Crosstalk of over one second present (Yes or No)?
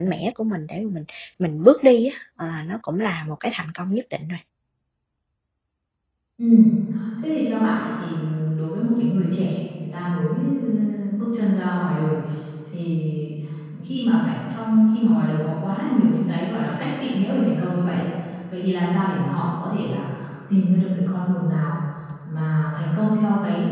No